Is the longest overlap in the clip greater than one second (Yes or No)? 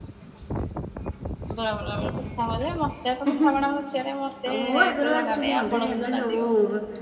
Yes